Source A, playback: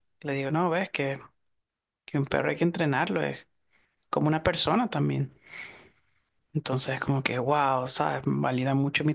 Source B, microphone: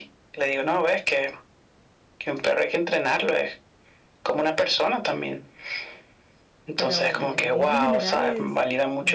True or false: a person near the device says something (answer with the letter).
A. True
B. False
A